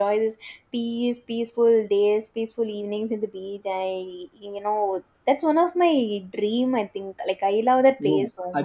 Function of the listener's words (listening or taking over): taking over